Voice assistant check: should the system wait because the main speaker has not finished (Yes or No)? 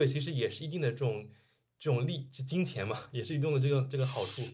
No